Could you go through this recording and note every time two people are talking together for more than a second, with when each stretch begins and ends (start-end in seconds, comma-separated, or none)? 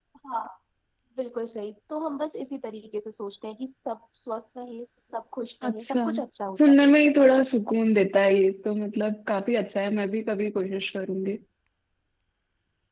none